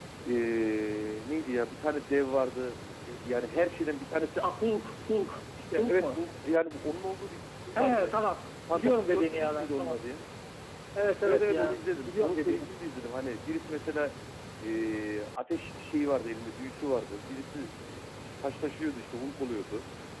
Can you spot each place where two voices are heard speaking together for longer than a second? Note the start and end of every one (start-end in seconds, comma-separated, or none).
8.7-10.0, 11.2-12.7